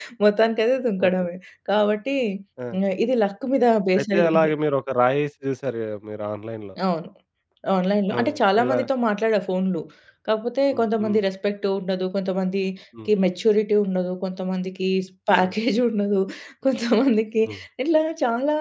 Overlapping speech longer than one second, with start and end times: none

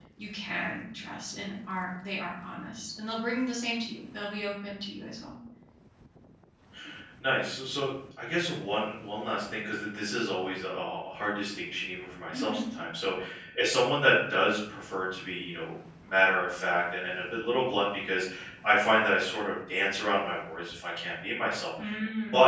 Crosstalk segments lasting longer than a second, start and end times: none

